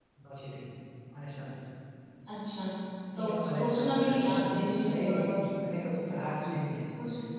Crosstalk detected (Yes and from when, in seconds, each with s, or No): Yes, from 3.1 s